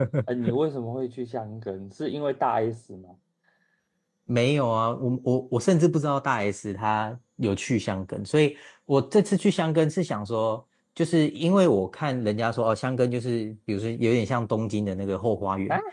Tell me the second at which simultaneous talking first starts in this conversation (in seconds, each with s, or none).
none